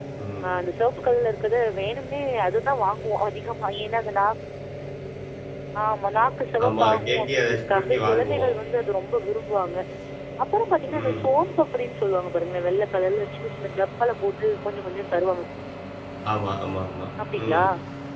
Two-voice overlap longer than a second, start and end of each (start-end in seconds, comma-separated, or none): 6.6-8.5